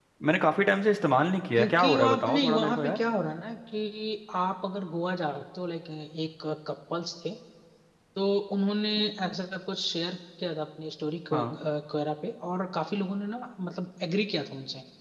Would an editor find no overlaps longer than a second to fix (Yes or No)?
No